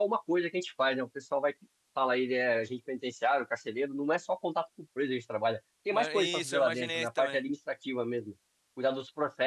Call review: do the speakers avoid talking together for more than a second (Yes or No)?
No